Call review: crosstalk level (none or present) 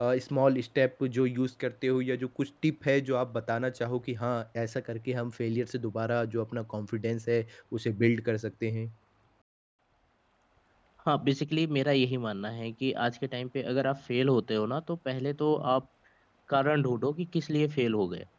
none